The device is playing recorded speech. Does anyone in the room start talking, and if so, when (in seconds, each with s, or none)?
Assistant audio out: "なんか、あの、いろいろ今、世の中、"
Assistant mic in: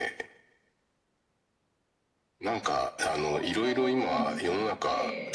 3.3 s